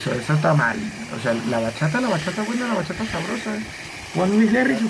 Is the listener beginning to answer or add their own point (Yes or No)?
No